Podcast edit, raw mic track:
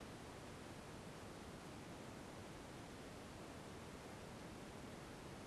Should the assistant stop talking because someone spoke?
No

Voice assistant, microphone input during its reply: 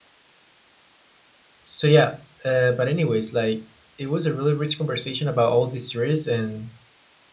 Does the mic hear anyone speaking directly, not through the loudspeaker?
Yes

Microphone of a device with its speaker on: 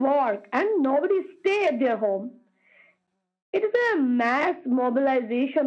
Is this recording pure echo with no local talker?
Yes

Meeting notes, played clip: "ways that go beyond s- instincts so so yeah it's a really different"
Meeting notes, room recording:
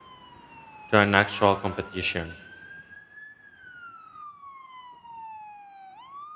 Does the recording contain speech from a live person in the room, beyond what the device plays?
Yes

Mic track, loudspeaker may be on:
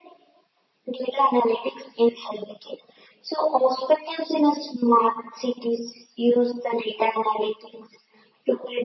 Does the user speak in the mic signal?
No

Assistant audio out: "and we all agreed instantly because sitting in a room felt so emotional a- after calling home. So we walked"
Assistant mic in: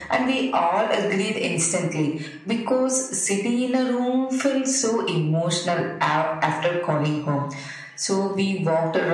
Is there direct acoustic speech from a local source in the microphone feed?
No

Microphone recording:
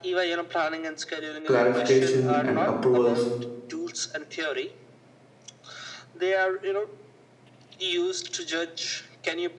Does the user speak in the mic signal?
Yes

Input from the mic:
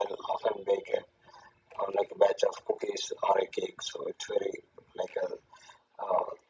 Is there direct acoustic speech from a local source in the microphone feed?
No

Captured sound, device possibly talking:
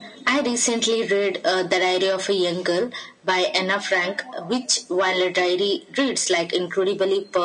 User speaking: No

